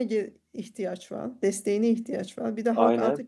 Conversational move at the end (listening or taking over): listening